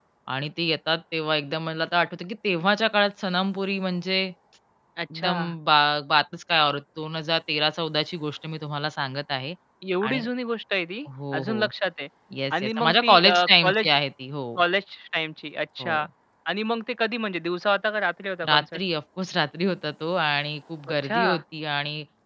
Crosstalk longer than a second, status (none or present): present